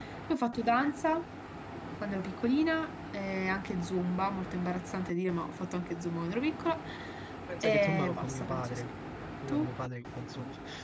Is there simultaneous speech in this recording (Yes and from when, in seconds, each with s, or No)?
Yes, from 7.6 s